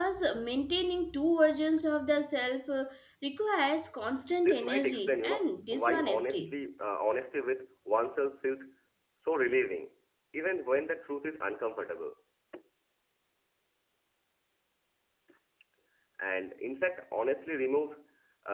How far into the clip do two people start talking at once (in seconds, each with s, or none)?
4.3 s